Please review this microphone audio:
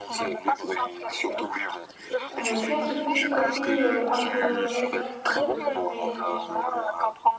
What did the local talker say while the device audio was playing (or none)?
Euh, tu as ce petit côté euh, un peu rêveur, si on peut dire, mais